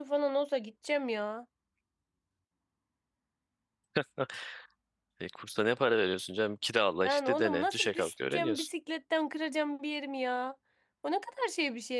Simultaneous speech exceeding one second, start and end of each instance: 7.1-8.7

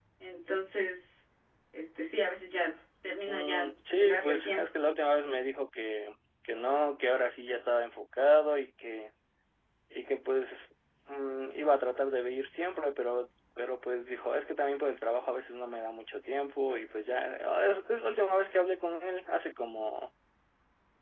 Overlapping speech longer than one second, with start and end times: 3.3-4.7

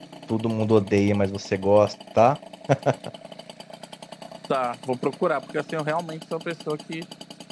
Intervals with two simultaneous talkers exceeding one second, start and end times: none

